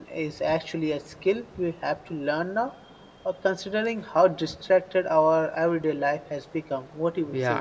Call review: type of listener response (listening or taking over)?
taking over